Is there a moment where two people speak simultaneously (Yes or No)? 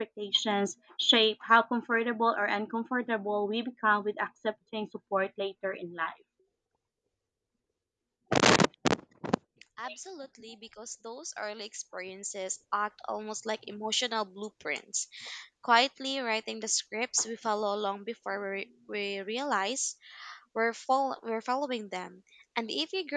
No